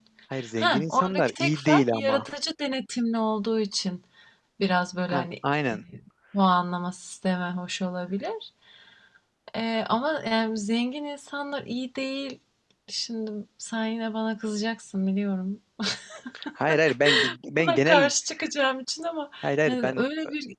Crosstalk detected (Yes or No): Yes